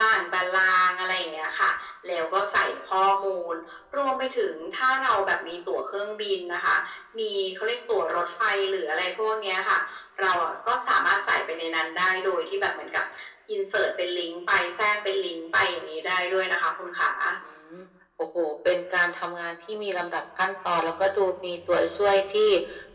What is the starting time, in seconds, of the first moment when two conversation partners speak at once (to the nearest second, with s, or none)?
none